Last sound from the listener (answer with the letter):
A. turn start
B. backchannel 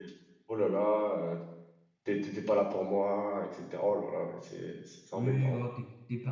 A